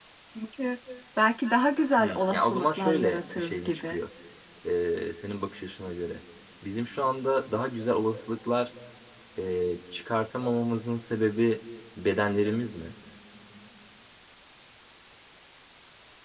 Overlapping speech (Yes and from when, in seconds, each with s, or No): Yes, from 2.0 s